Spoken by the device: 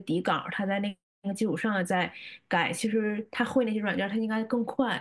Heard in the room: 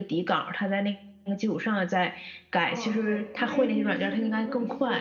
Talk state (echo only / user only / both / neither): both